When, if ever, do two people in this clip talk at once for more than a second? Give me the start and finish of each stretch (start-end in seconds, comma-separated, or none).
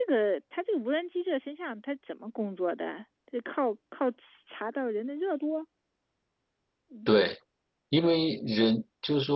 none